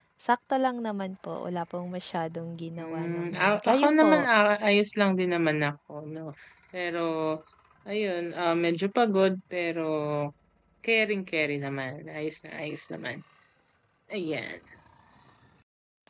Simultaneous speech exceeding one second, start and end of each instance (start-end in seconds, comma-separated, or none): 2.8-4.3